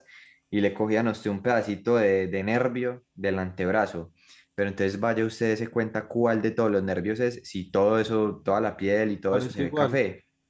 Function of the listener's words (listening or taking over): listening